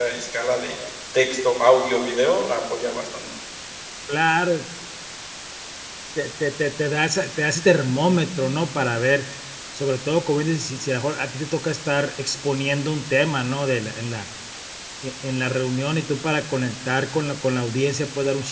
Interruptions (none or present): none